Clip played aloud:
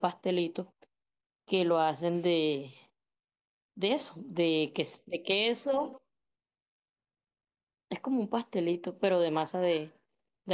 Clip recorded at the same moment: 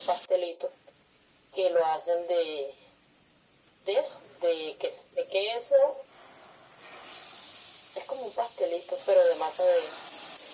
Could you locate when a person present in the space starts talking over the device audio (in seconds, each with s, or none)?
none